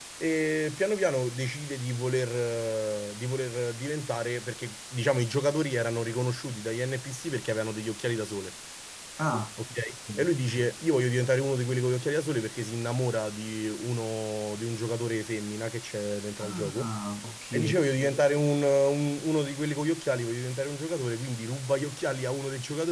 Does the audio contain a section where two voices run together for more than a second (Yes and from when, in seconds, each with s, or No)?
No